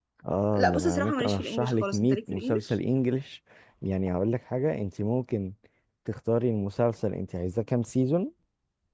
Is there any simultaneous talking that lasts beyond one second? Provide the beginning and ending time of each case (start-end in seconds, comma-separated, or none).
0.5-2.7